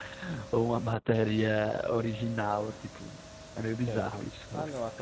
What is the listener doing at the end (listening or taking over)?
taking over